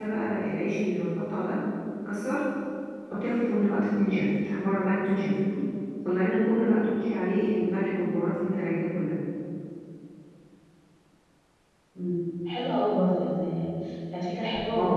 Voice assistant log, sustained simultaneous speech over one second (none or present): none